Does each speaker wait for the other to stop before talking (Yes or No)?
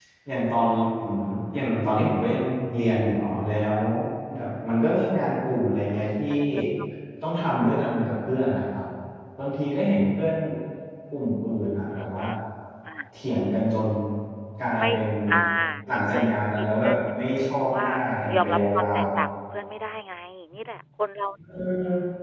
No